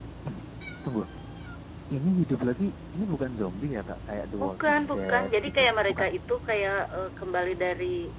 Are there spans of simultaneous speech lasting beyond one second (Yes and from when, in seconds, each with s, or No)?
Yes, from 4.4 s